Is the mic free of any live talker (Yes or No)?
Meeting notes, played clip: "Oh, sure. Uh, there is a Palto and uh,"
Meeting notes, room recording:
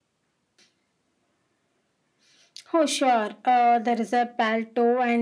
Yes